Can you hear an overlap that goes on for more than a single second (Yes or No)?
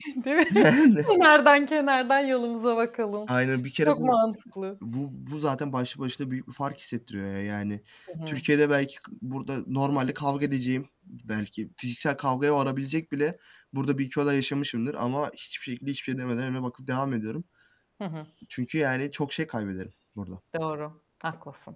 No